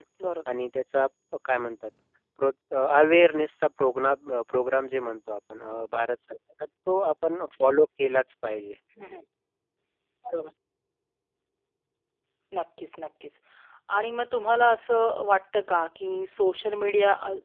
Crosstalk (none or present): none